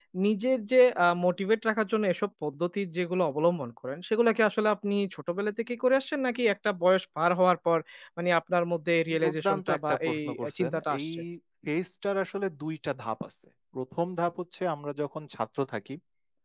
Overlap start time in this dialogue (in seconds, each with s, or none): 9.1 s